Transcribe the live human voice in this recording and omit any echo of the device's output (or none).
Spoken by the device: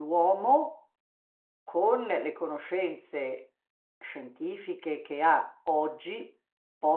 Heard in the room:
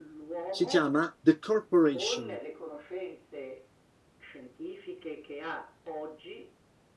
Si chiama The Corporation.